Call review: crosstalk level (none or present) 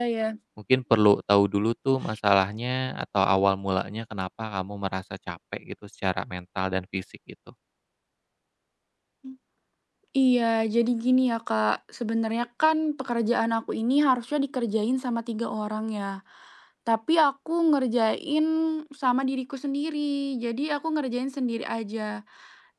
none